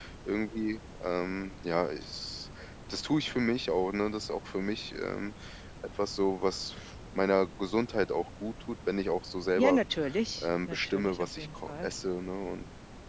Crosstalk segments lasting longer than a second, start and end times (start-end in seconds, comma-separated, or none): 10.4-11.9